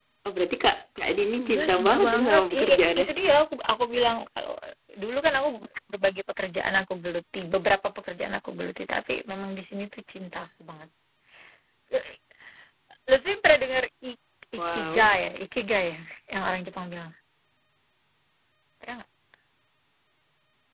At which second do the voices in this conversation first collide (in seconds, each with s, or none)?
1.4 s